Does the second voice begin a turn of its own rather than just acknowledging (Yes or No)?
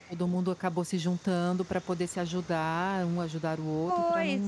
Yes